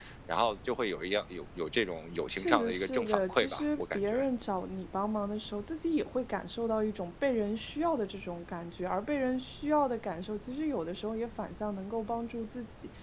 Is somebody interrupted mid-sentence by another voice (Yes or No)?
Yes